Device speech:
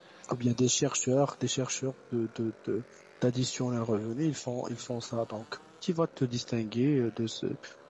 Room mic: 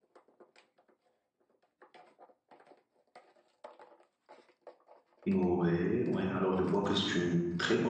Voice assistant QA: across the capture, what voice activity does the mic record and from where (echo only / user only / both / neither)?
user only